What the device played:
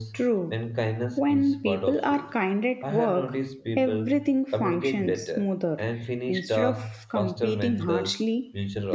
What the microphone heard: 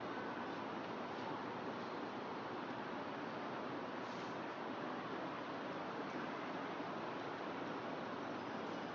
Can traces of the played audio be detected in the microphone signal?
No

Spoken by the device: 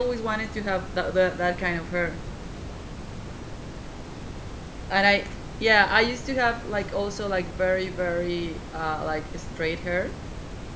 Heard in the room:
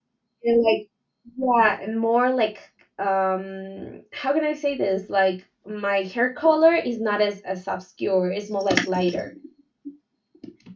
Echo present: No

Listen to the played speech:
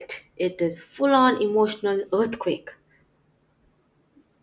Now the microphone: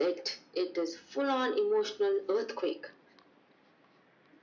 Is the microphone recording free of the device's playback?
No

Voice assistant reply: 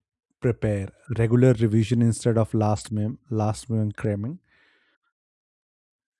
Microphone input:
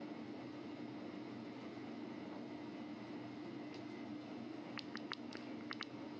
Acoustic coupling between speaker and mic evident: No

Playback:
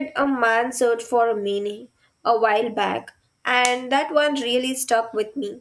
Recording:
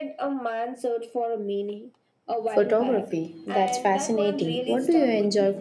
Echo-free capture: No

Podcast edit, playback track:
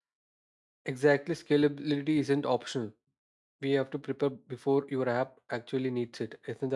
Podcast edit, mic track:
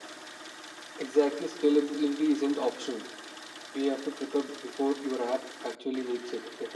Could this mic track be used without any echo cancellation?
No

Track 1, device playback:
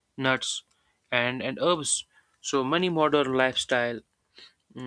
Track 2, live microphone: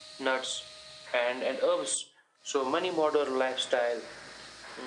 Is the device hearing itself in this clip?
Yes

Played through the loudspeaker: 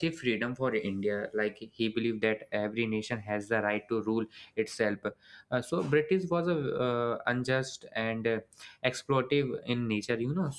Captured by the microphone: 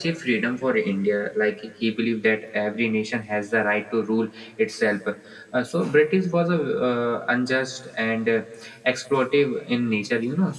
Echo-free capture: No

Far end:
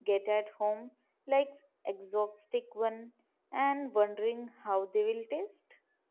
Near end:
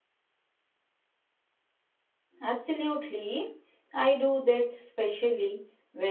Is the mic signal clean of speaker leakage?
Yes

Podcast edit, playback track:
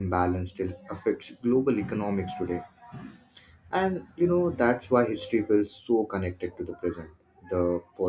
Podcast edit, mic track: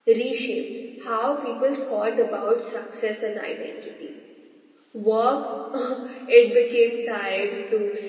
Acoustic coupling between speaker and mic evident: No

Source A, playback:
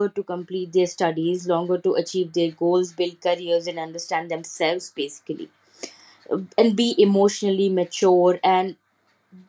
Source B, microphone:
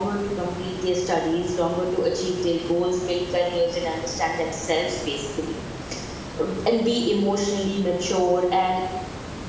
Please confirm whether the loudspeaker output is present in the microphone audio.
Yes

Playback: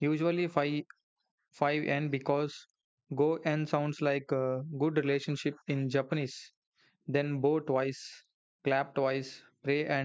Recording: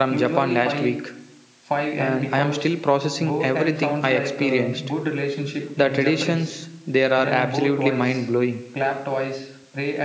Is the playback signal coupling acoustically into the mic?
Yes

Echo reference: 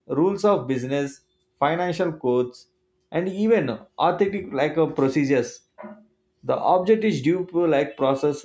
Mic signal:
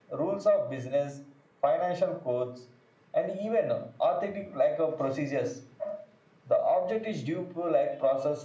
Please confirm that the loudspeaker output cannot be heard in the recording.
No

